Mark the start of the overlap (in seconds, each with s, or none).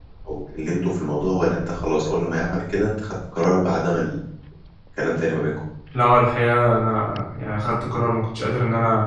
none